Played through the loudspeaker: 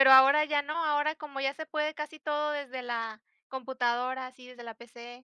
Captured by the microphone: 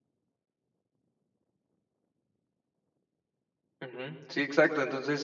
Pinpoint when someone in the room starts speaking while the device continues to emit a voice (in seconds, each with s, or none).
3.8 s